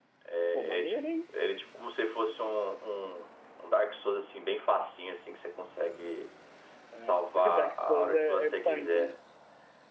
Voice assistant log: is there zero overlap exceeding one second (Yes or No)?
No